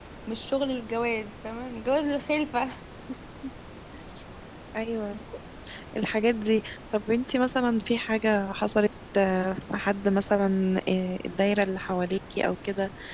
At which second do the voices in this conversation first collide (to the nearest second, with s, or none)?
none